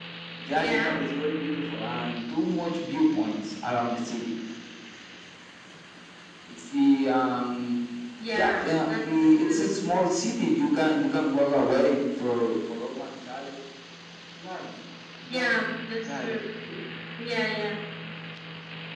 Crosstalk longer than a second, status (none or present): present